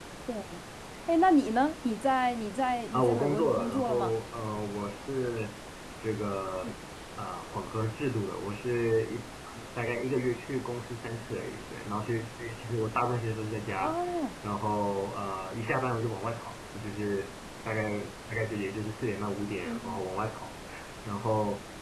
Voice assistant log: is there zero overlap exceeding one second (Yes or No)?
No